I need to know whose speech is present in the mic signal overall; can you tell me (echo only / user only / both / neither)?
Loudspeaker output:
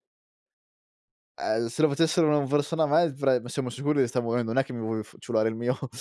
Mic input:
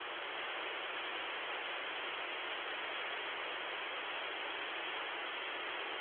neither